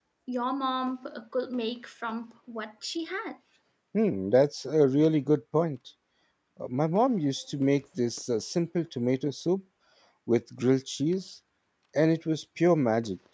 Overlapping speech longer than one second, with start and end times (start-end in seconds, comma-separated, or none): none